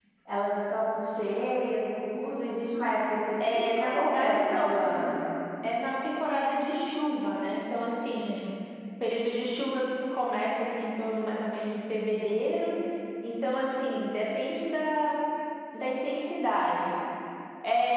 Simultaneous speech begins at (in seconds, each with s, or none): 3.4 s